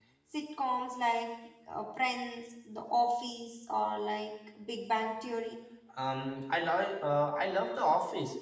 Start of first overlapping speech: none

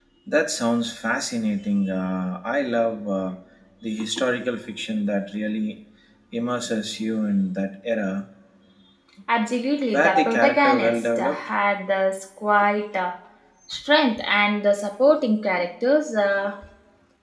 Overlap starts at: 10 s

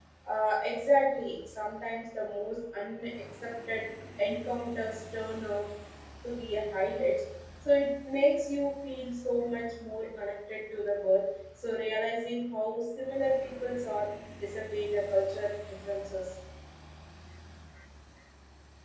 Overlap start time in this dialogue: none

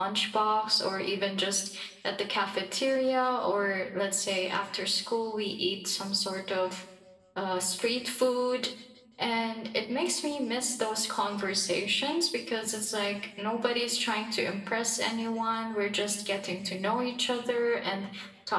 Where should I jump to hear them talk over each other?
none

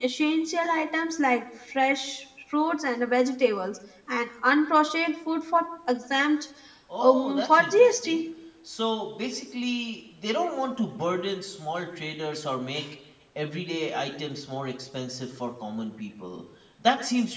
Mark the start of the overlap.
7 s

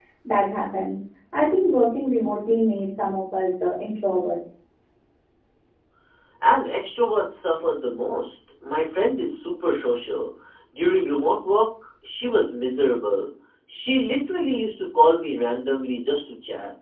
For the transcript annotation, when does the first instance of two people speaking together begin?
none

